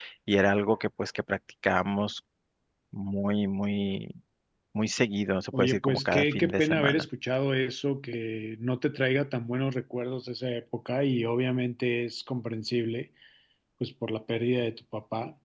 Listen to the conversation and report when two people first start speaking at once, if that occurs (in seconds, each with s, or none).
5.6 s